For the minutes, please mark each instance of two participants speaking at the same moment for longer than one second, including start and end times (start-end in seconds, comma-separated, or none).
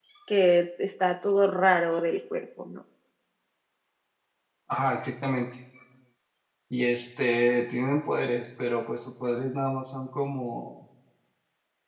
none